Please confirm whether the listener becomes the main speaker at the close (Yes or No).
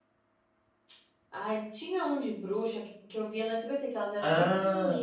No